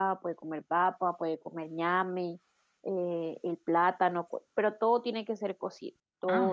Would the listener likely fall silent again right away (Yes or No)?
No